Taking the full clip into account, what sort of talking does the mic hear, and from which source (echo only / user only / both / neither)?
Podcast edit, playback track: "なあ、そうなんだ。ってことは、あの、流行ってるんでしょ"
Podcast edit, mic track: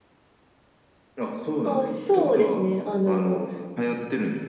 both